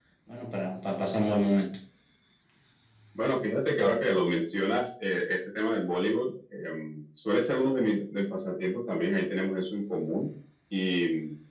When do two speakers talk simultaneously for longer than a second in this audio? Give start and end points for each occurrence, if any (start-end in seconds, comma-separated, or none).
none